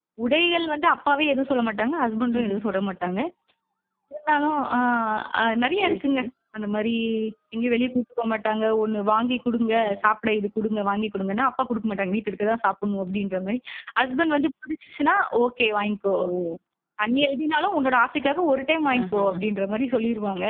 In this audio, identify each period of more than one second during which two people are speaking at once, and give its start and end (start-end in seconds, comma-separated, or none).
none